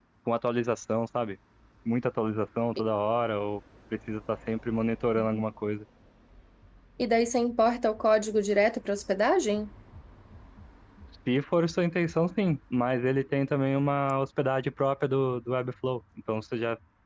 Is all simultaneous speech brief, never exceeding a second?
Yes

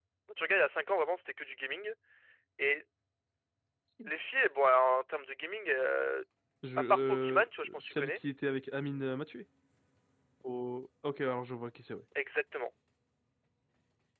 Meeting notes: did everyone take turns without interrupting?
No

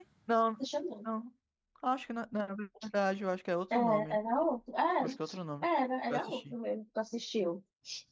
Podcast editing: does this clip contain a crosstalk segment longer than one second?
No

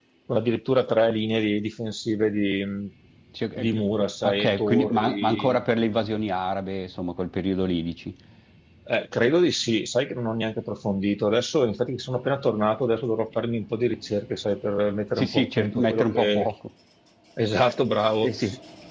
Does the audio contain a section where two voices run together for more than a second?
Yes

